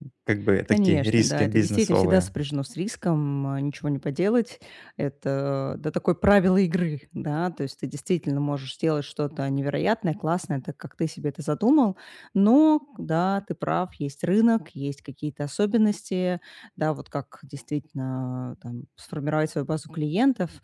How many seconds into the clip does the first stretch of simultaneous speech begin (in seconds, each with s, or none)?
0.7 s